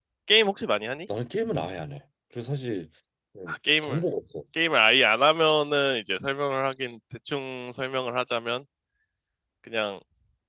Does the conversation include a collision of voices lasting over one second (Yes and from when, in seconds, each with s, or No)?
No